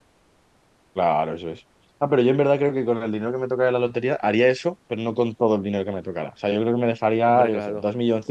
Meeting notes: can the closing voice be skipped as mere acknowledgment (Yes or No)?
Yes